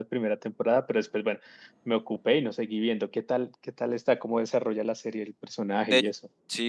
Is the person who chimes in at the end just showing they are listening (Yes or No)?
No